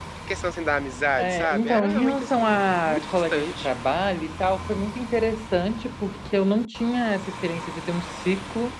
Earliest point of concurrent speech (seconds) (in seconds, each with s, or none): 1.2 s